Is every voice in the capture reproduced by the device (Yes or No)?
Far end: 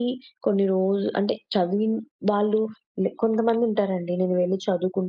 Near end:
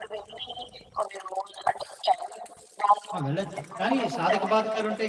No